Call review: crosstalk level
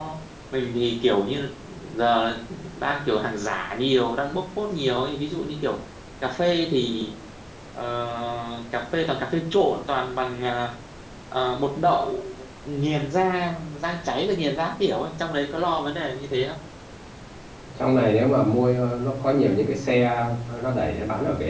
none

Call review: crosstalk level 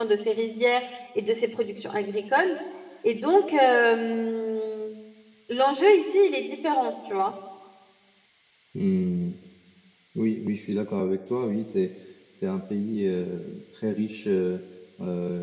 none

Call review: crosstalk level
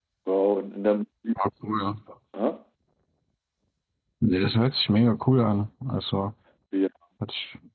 none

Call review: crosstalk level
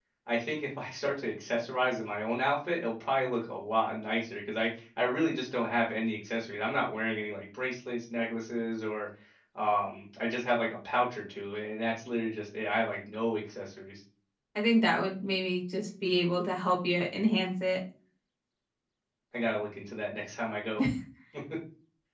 none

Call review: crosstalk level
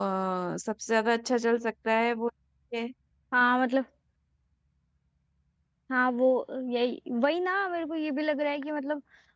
none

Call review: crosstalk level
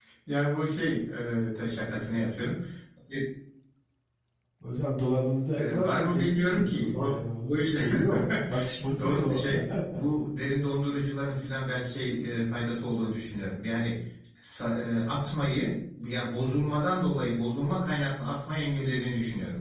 present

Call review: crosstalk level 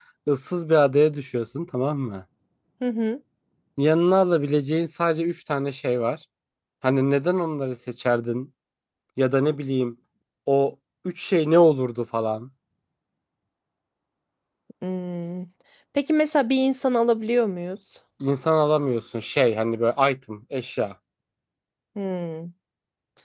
none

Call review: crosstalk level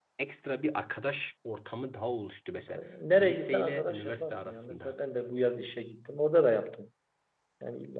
present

